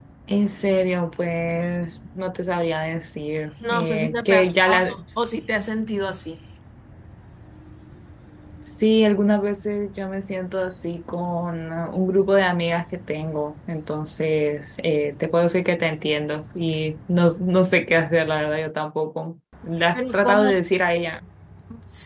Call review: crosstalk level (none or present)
present